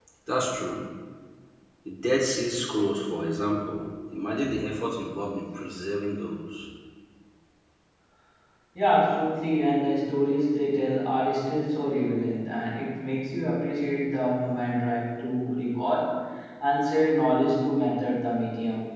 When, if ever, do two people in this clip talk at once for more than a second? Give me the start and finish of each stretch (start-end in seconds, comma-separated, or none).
none